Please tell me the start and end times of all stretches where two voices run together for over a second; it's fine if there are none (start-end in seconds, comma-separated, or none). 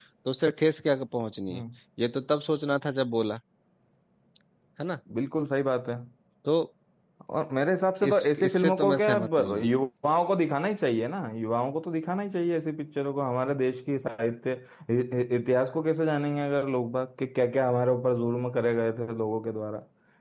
8.1-9.7